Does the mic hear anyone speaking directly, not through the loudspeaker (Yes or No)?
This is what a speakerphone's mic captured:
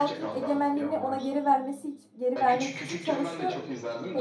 Yes